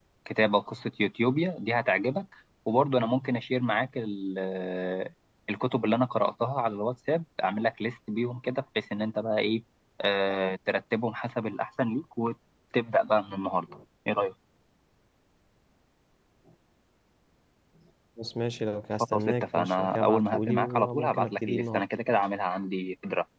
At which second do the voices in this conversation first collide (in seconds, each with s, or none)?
19.0 s